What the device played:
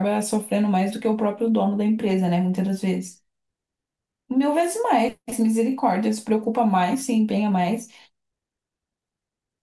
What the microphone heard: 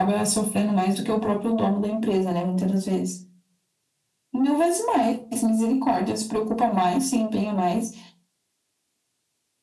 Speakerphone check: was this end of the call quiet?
Yes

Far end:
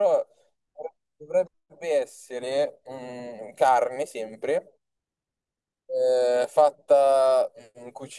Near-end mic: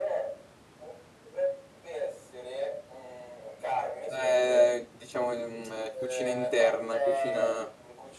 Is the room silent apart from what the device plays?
No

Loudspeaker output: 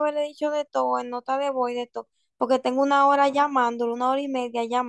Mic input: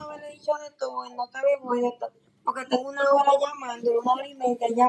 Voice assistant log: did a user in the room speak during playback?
No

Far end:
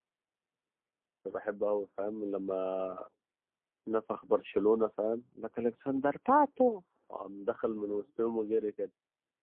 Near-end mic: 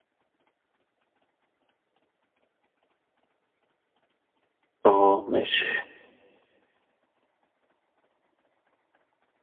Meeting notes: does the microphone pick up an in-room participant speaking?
Yes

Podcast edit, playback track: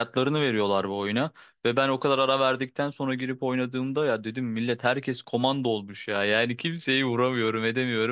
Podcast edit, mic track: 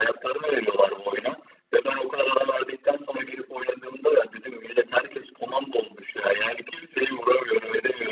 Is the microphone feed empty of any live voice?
Yes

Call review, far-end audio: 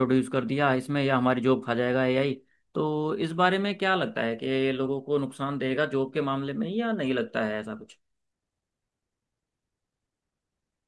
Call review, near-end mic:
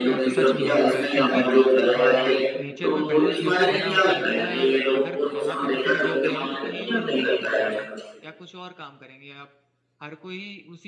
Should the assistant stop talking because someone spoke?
Yes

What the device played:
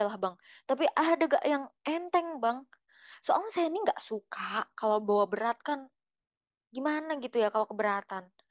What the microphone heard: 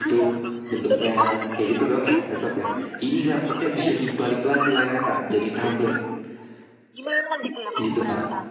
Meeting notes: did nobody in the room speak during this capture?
No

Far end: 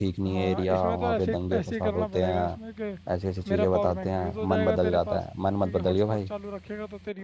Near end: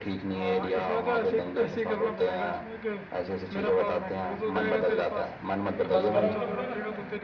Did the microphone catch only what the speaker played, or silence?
No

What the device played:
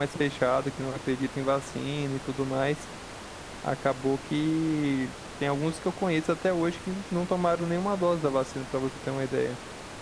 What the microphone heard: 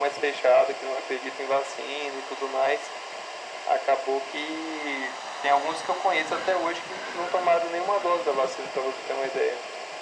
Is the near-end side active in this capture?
No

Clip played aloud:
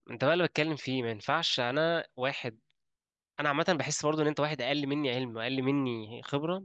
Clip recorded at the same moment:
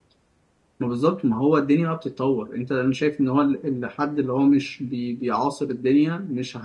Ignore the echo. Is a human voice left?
Yes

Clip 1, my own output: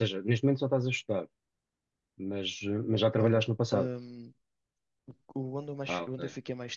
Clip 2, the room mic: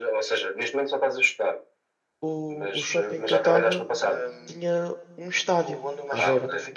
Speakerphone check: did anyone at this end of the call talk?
Yes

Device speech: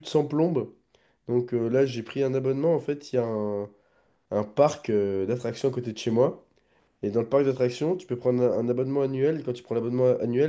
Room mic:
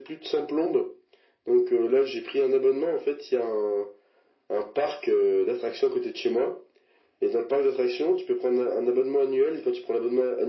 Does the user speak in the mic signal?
No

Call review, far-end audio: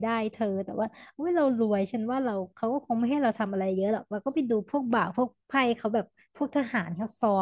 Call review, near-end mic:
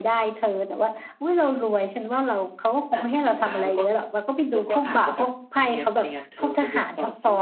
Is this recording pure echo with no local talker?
No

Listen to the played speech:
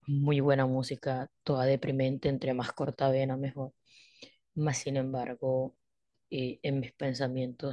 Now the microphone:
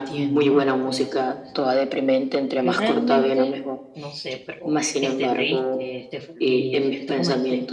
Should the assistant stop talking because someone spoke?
Yes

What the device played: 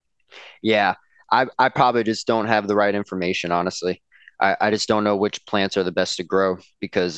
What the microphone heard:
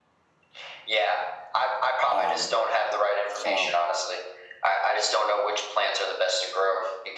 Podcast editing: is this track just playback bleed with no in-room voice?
No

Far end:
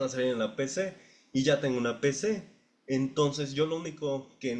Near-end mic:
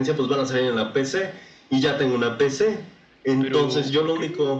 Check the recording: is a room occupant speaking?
Yes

